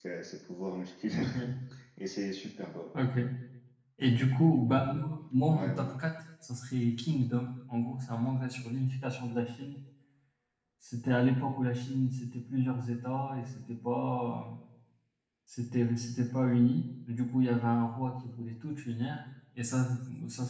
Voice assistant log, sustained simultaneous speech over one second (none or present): none